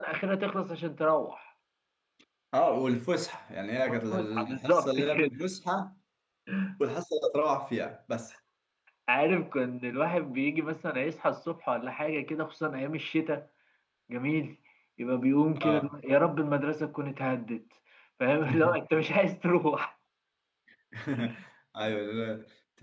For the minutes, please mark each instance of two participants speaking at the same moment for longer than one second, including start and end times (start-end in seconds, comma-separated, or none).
3.9-5.3